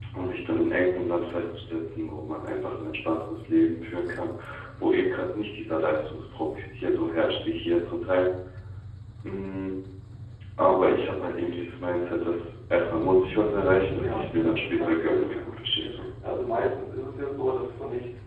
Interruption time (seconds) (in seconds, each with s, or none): 14.0 s